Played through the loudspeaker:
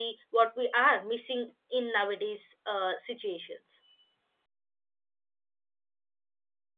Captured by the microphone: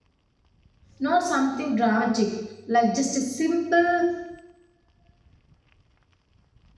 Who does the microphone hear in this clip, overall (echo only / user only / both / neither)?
user only